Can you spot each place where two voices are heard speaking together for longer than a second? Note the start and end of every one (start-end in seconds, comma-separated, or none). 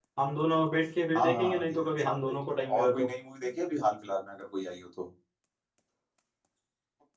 1.1-3.1